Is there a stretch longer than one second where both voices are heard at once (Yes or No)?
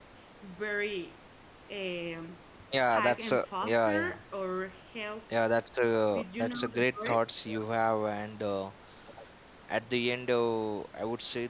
Yes